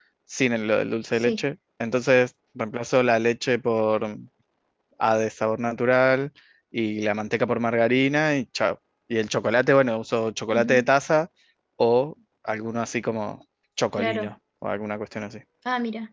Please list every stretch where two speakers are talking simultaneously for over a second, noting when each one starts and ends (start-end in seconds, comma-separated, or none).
none